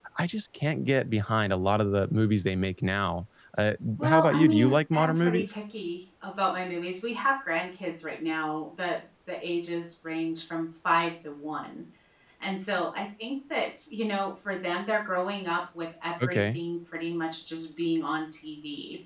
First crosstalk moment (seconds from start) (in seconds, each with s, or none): 4.0 s